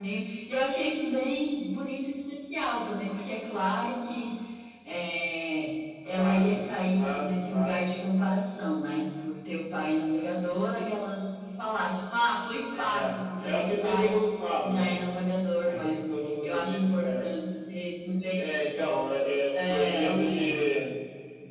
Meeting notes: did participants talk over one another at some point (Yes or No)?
Yes